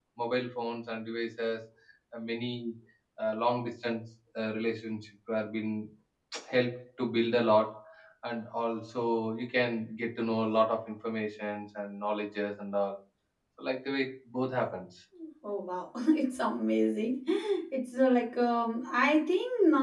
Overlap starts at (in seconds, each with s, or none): none